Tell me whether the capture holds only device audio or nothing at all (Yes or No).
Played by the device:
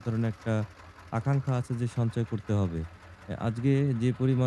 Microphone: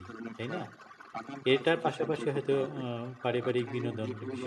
No